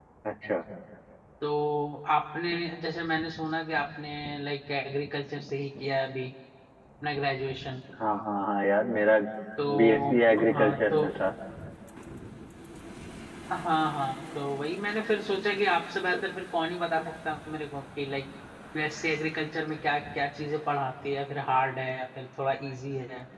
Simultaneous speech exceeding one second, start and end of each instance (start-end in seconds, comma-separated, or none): 9.8-11.1